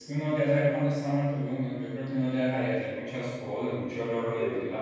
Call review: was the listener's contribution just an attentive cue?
No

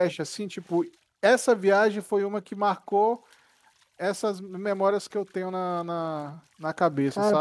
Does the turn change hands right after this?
Yes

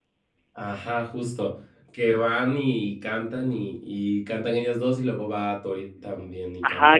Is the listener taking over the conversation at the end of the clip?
Yes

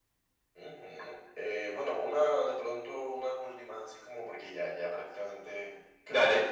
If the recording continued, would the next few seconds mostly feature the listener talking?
No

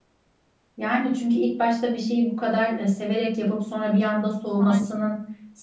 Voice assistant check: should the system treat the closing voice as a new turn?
No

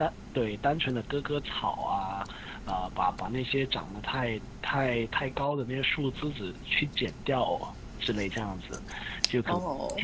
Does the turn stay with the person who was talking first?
Yes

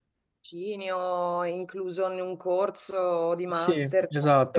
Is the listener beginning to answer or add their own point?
Yes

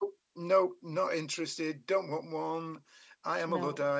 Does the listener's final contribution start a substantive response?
No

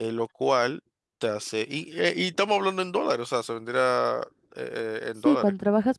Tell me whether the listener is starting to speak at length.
Yes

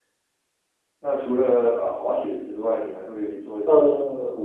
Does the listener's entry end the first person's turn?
Yes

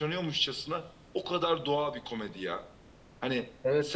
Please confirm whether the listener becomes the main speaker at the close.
Yes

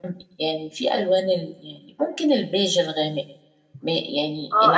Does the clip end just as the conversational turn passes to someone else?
Yes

